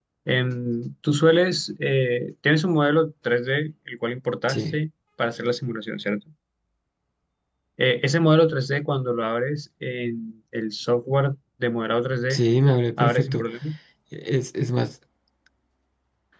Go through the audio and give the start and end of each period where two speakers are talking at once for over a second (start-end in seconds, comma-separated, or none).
none